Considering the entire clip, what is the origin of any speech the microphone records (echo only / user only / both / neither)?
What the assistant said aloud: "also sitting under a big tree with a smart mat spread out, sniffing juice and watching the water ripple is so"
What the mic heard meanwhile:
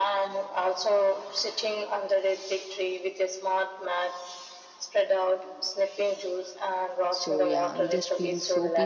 both